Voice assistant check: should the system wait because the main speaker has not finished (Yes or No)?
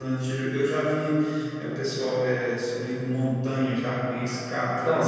Yes